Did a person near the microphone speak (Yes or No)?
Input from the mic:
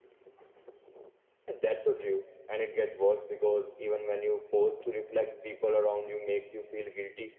Yes